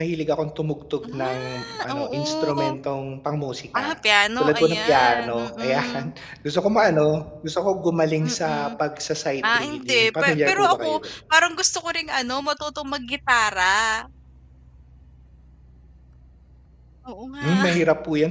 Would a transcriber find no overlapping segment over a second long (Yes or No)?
No